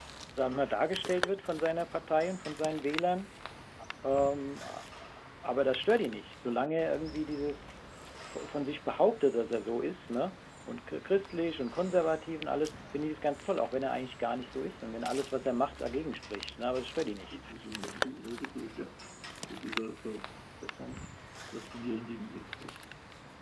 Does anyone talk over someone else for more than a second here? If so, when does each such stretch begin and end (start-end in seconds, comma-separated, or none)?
none